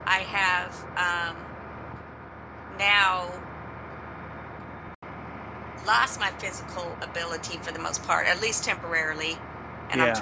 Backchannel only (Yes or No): Yes